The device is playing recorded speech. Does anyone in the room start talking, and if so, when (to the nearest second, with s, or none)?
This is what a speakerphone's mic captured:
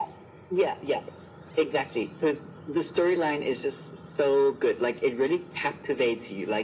none